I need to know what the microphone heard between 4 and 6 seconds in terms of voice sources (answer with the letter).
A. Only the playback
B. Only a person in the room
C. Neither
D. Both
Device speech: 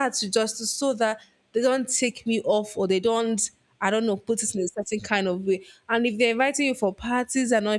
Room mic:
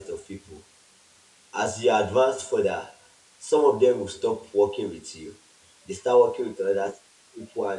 B